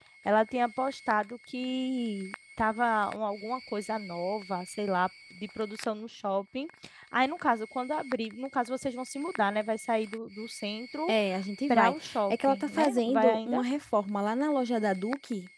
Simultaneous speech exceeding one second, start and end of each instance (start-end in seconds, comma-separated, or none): 11.7-13.6